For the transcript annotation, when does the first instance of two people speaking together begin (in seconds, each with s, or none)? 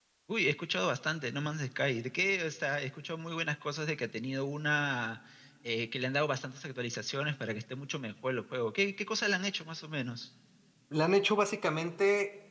none